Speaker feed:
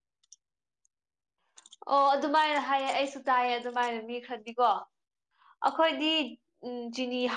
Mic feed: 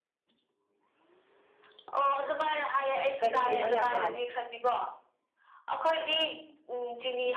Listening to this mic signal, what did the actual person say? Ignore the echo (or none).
ꯀꯔꯤ ꯀꯩꯅꯣ ꯌꯥꯝ ꯃꯥꯜꯂꯦ